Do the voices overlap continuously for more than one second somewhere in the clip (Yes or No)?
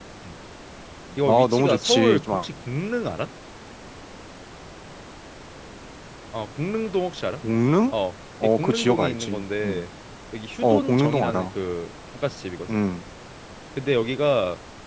Yes